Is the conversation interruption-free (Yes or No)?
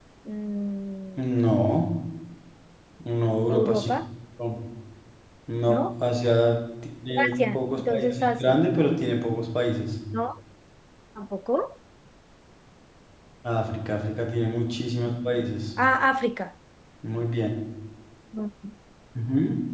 No